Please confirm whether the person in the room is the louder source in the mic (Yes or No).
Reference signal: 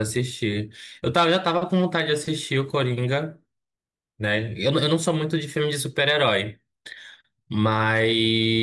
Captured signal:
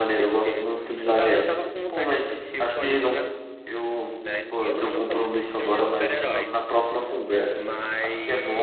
Yes